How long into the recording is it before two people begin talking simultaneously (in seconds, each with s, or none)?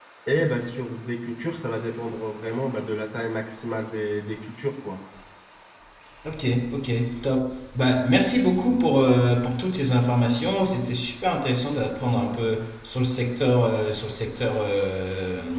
none